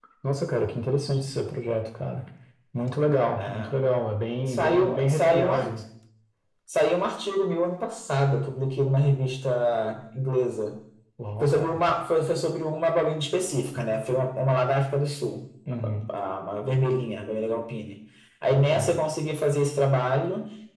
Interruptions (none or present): present